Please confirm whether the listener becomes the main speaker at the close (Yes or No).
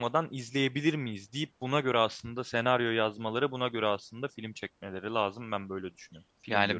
Yes